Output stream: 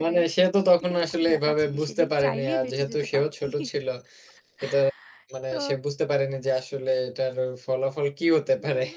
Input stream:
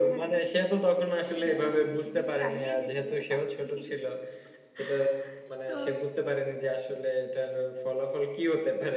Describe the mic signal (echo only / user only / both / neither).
echo only